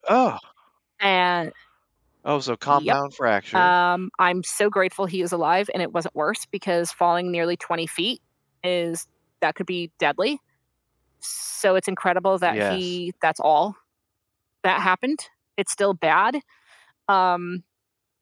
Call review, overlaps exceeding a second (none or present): none